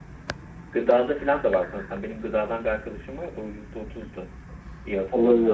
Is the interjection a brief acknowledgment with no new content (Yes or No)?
No